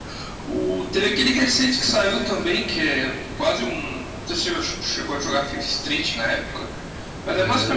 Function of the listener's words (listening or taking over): taking over